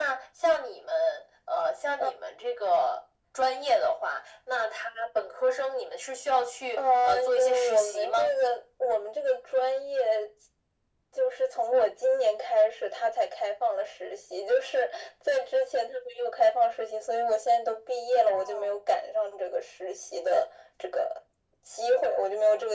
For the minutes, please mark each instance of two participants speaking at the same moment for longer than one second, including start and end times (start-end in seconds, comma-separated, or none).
6.8-8.3